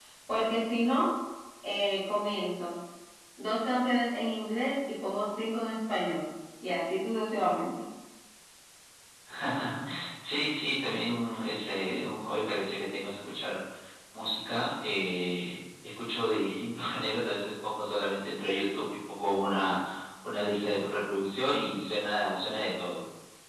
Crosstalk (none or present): none